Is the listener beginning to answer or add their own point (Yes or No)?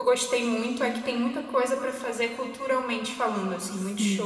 Yes